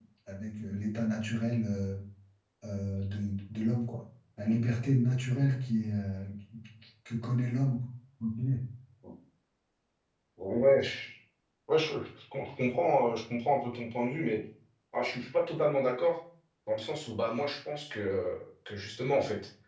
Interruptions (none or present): none